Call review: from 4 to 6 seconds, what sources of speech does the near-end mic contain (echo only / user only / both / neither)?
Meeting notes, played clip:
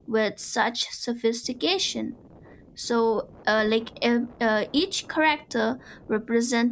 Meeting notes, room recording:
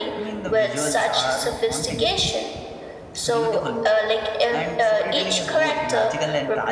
both